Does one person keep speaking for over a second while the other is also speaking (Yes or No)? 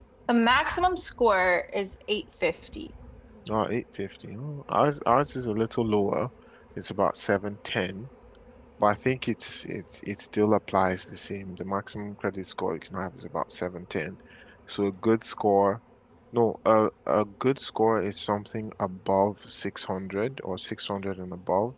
No